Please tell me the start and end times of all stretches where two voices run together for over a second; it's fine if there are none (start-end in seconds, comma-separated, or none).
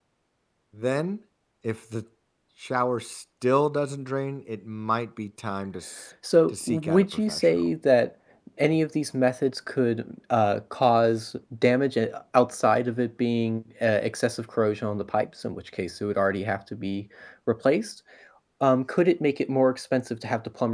6.5-7.7